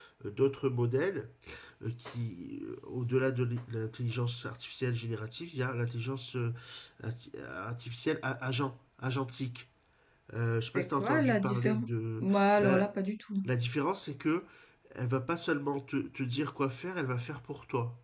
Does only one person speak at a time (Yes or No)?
No